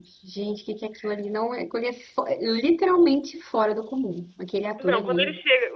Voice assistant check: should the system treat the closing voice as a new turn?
Yes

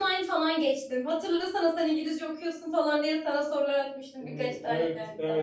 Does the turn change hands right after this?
Yes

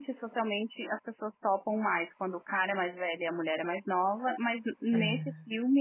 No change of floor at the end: Yes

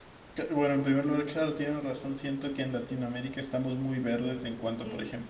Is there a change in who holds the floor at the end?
No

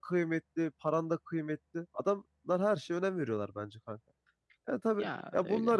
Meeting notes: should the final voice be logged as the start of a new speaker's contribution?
No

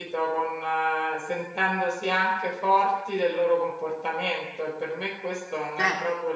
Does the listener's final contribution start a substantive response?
No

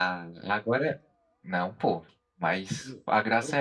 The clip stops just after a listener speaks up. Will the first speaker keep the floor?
Yes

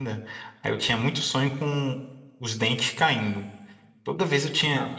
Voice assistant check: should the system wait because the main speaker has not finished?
No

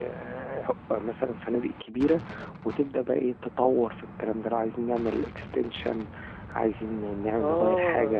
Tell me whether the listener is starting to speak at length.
Yes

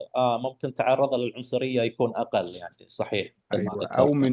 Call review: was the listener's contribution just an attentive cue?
No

